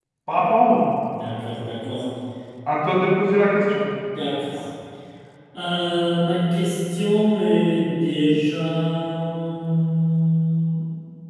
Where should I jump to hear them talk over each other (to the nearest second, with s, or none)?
none